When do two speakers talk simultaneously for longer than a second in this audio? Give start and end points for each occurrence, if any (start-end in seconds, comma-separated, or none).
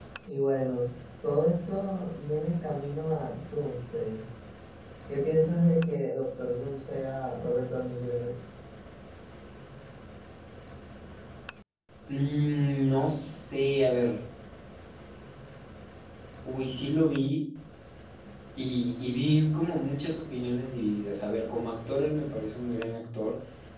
none